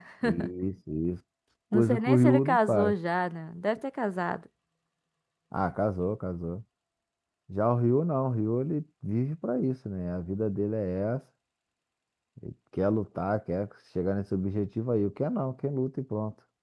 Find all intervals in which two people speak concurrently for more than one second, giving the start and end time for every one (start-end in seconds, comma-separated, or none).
1.7-2.9